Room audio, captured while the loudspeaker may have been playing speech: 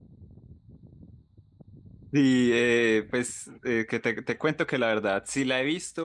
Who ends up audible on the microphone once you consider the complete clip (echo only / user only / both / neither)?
user only